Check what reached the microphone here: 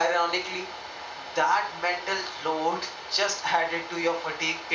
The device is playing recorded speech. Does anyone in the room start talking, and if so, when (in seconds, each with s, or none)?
none